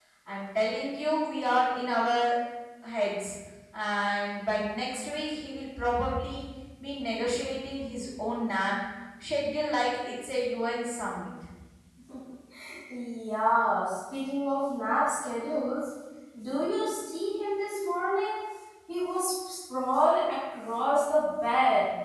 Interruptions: none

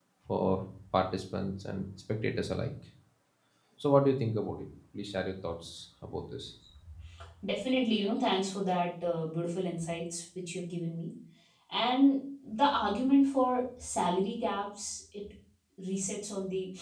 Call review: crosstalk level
none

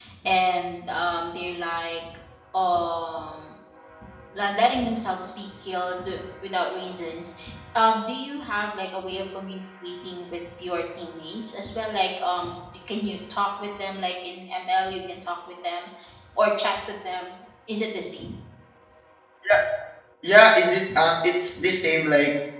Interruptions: none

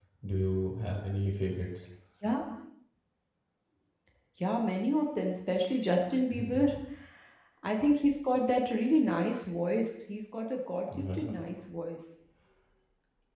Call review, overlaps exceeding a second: none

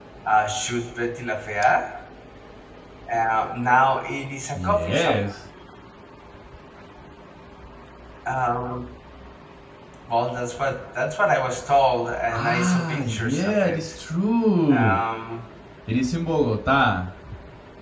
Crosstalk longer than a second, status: present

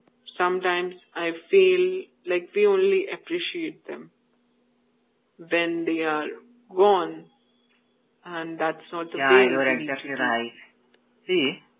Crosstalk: present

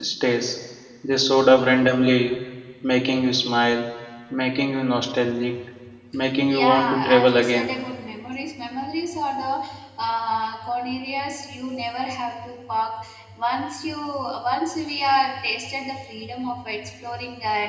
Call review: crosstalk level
present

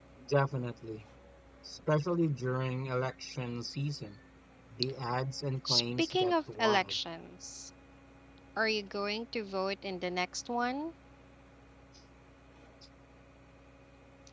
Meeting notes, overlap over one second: present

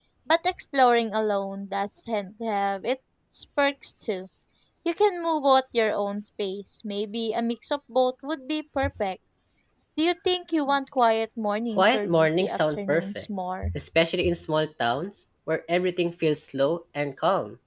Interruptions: present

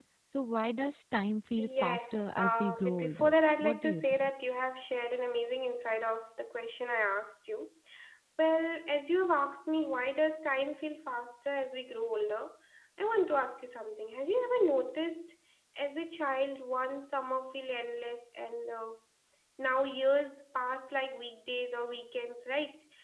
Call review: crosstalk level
present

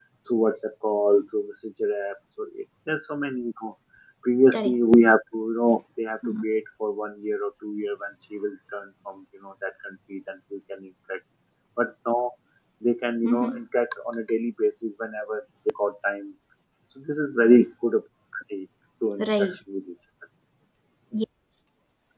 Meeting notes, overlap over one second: none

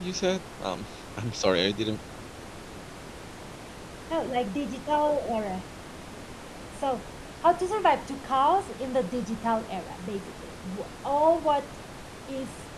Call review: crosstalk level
none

